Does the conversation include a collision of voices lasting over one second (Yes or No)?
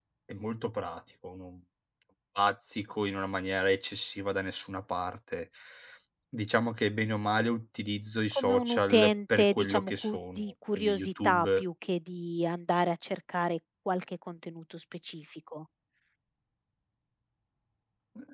Yes